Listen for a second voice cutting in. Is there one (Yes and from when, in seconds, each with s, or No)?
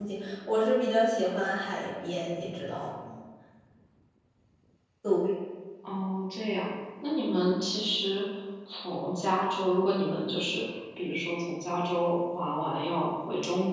No